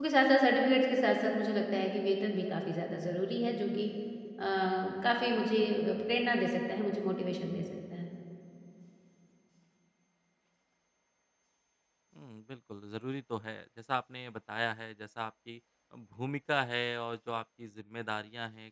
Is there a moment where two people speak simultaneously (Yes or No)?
No